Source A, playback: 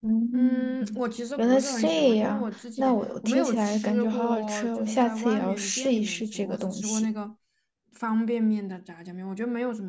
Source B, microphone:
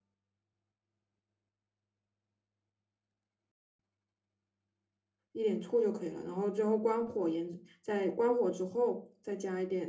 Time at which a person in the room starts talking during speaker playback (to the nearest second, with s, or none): 5 s